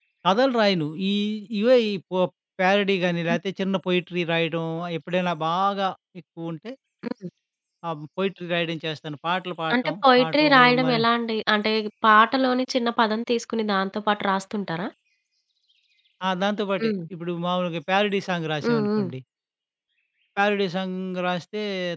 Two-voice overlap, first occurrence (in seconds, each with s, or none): 9.7 s